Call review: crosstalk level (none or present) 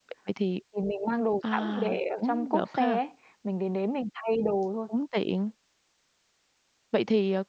present